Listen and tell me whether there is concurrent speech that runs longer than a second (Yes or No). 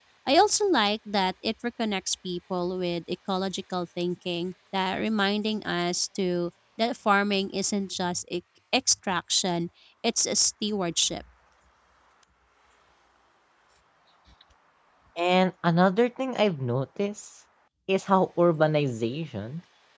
No